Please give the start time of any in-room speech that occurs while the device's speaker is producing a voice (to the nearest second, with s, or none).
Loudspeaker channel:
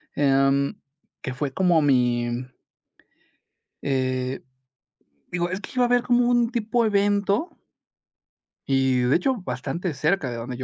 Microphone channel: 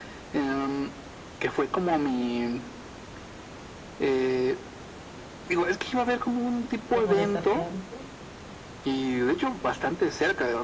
7 s